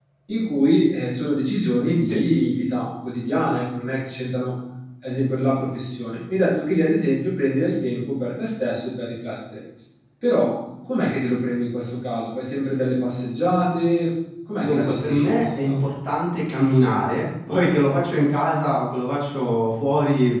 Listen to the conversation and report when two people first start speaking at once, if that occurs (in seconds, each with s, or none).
14.6 s